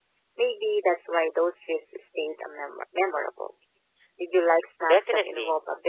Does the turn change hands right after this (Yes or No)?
Yes